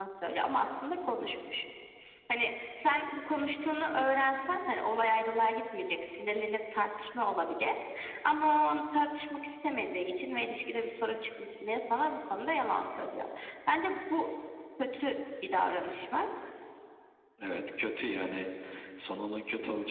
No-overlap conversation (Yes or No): Yes